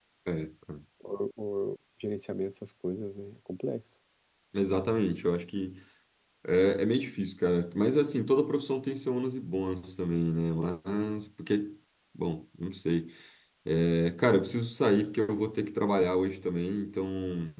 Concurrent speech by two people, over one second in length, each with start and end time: none

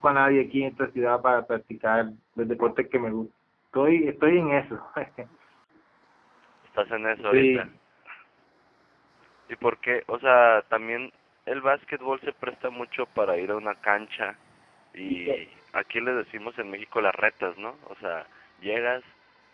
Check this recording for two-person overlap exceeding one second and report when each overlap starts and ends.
none

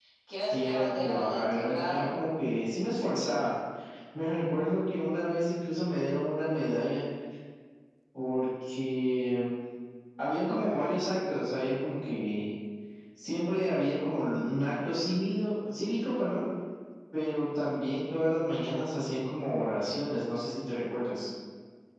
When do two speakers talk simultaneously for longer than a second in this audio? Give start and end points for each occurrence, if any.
0.5-2.1

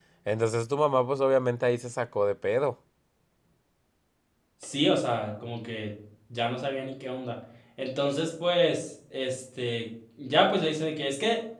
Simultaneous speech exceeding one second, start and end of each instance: none

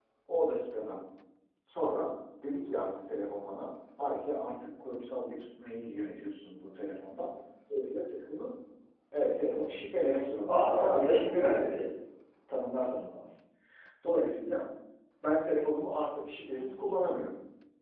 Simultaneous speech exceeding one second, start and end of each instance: 10.5-11.9

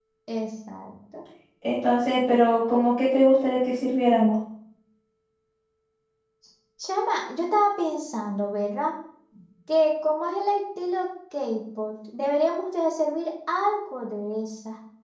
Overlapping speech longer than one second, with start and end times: none

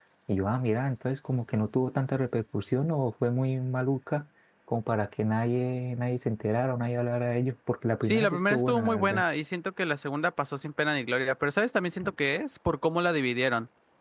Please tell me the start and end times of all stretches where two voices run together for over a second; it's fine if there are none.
8.0-9.2

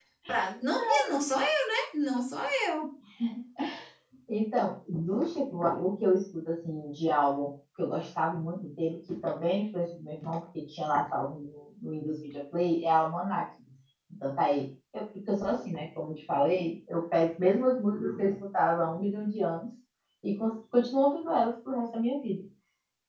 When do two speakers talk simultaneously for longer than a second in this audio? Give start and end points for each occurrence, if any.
none

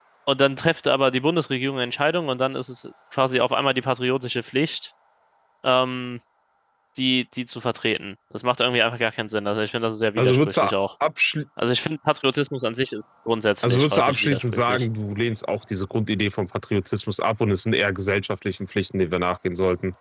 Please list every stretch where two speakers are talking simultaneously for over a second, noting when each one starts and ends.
13.6-14.8

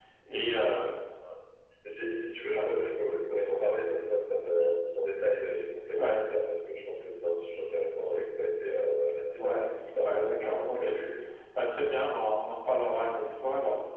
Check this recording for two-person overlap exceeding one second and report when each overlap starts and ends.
9.4-10.9

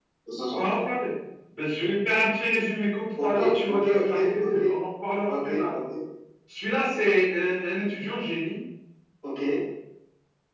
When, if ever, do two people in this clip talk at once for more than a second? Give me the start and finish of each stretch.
3.2-4.7

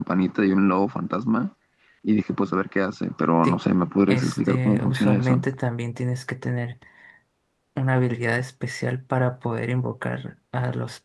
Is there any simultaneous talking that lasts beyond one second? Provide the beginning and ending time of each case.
4.1-5.4

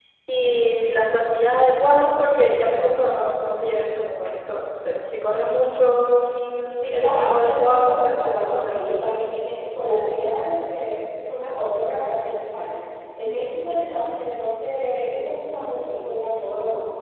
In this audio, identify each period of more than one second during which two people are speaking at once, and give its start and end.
6.8-8.9

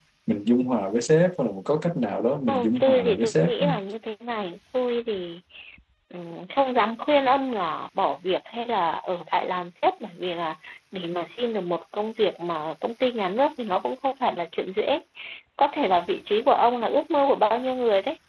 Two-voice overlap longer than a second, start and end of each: 2.5-3.7

